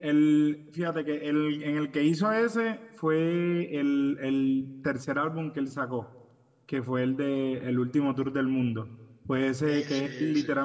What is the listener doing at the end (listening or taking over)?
listening